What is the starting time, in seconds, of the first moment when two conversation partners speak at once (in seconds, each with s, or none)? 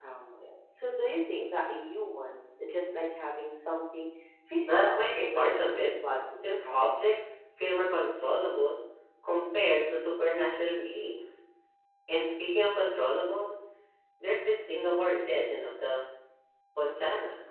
4.7 s